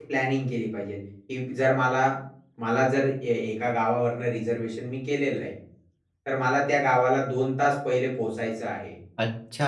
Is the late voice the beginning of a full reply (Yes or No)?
Yes